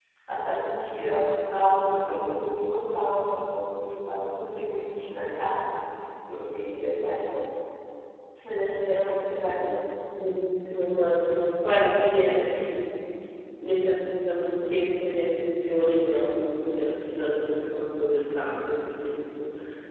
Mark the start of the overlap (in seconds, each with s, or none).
none